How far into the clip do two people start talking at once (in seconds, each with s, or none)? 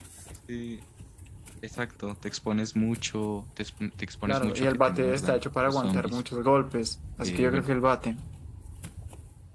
4.3 s